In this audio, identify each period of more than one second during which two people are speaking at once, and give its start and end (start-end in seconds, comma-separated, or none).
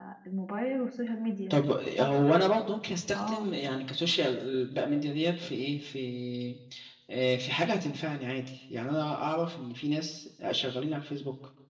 none